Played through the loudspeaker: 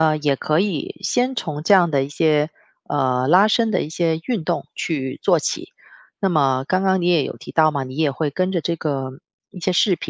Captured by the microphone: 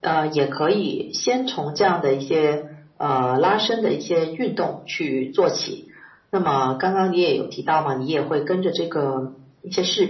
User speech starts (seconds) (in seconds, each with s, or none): none